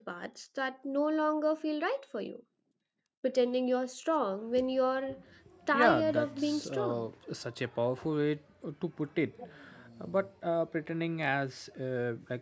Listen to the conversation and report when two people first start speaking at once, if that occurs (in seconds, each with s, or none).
5.7 s